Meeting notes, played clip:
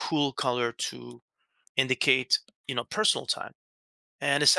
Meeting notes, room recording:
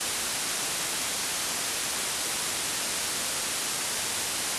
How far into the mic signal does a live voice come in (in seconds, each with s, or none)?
none